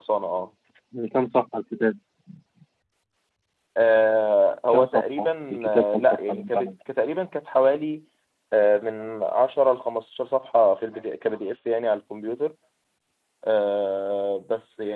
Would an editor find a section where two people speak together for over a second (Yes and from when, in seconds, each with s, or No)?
Yes, from 4.7 s